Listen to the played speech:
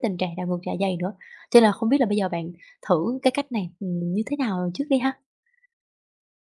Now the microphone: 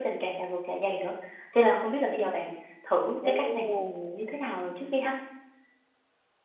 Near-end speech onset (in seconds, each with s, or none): 3.2 s